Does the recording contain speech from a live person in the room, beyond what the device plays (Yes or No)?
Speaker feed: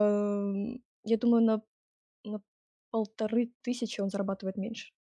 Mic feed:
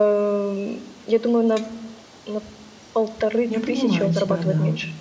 Yes